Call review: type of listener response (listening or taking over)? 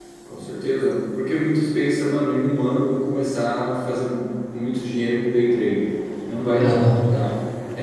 listening